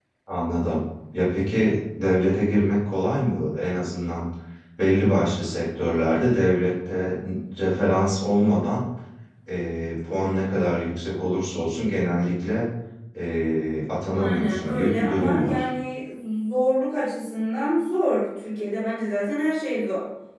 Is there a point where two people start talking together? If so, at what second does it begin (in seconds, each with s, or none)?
14.1 s